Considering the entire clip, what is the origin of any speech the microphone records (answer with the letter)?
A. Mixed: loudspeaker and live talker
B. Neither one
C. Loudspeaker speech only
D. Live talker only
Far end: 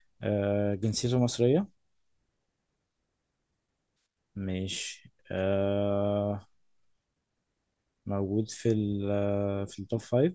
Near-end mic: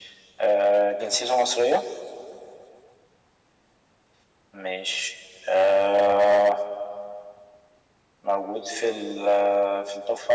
C